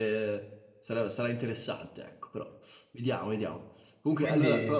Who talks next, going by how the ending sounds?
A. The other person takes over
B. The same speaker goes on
B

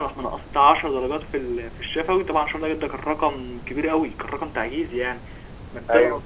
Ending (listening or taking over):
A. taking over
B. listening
B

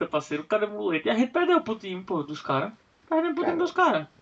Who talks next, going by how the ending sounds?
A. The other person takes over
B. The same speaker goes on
B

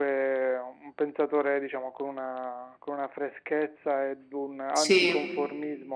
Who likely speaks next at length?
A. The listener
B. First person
B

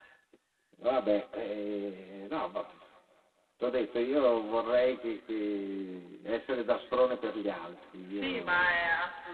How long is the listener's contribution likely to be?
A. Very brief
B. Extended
B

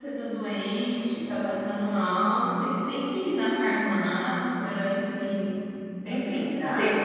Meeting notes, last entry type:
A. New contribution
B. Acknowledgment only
A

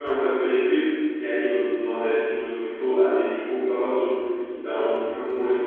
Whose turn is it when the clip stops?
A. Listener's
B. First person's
B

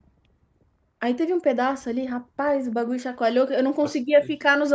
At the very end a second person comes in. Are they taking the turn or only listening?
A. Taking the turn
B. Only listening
B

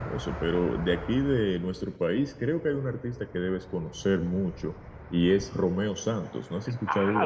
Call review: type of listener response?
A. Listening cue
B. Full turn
B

